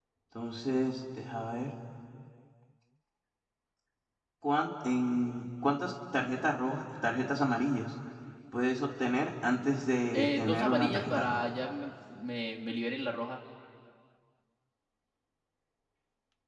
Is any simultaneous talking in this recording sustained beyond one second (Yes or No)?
Yes